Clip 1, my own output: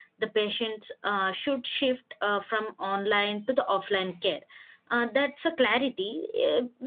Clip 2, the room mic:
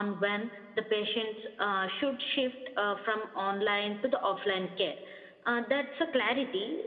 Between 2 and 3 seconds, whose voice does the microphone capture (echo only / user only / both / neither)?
echo only